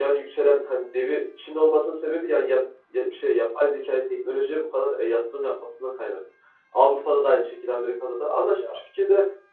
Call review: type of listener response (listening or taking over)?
listening